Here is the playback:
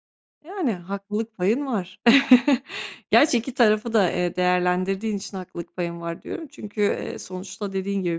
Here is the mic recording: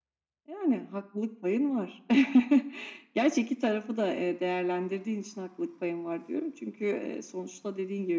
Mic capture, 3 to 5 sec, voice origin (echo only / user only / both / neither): echo only